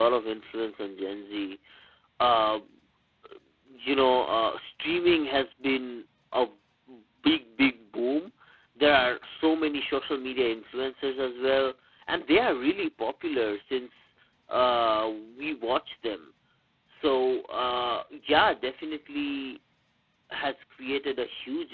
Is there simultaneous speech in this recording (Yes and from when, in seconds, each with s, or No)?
No